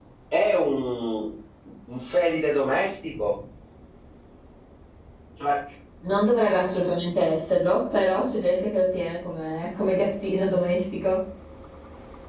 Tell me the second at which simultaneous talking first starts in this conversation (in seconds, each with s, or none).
none